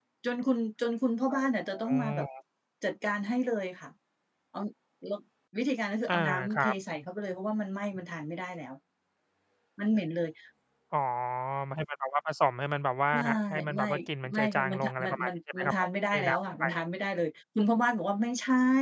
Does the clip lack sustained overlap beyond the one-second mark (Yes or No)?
No